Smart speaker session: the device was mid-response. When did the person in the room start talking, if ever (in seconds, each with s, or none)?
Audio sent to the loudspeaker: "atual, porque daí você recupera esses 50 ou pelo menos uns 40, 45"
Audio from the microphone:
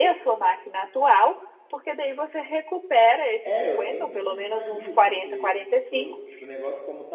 3.4 s